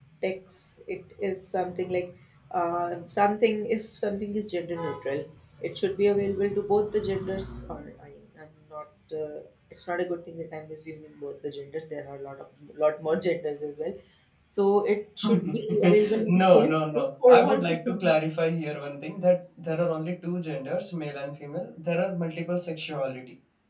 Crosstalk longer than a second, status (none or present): present